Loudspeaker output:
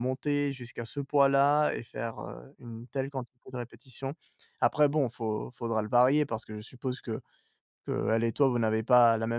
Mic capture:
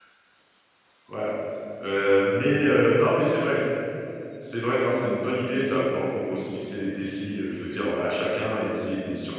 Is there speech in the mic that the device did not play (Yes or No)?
Yes